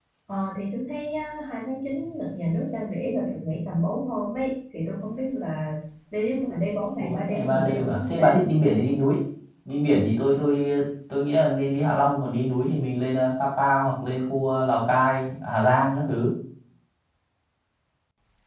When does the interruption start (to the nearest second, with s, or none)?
7 s